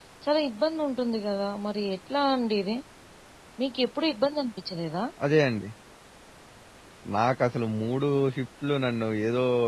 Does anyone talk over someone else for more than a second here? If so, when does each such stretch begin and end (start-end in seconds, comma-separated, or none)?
none